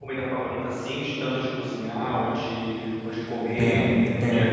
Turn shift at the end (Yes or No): Yes